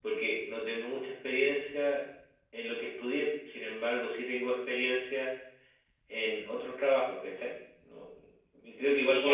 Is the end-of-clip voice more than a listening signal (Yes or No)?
No